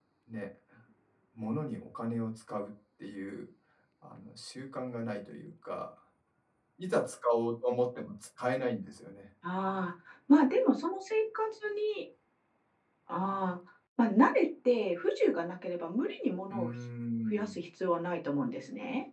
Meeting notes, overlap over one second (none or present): none